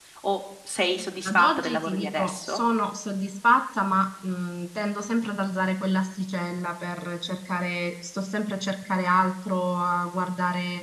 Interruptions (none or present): present